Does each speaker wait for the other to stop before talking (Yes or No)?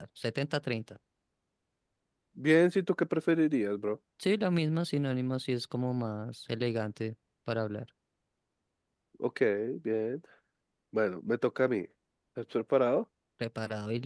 Yes